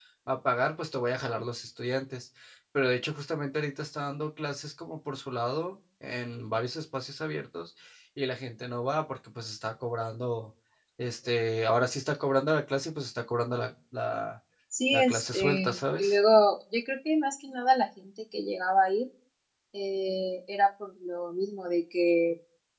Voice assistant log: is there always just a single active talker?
No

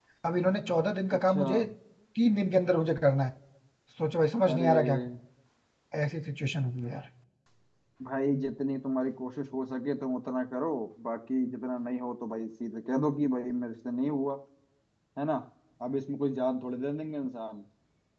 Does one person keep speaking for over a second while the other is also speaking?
No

